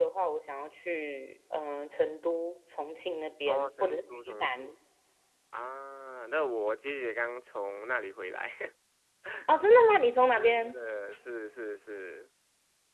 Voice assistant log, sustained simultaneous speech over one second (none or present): present